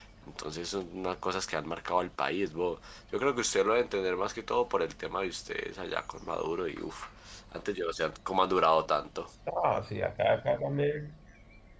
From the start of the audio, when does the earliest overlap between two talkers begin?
none

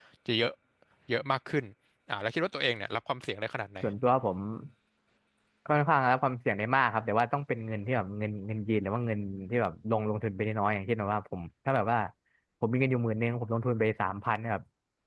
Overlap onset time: none

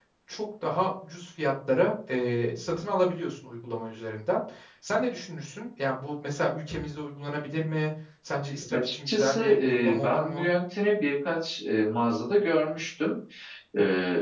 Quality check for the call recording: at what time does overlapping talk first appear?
8.7 s

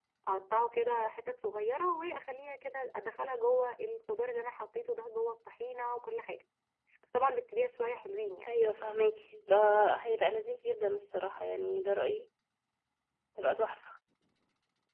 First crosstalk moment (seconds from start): none

